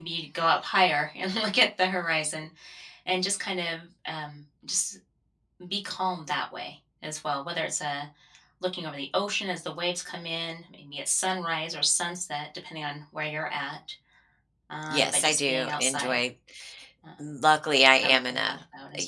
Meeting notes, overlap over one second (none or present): present